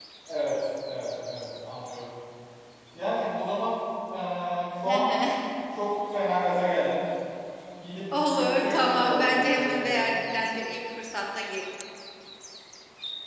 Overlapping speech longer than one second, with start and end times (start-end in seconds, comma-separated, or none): 8.3-10.1